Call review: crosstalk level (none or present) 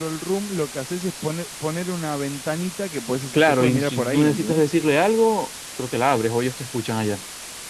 present